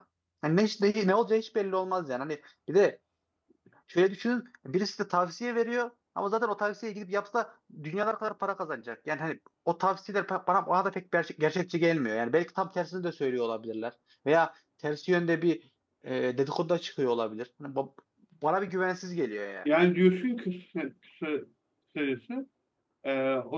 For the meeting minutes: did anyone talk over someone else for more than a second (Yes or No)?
No